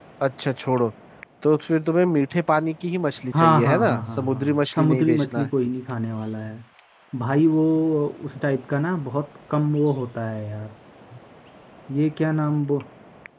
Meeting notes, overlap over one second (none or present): present